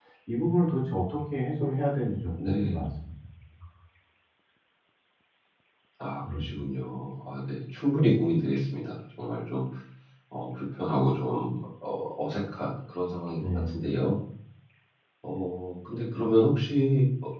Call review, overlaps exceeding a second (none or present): none